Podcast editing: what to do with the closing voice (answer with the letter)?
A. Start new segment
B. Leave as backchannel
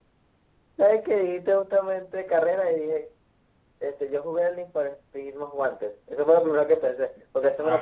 B